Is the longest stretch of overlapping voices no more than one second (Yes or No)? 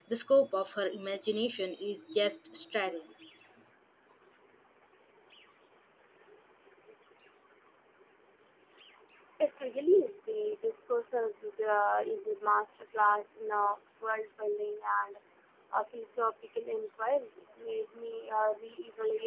Yes